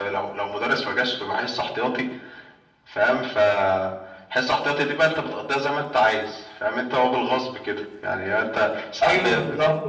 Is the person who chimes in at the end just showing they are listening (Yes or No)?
Yes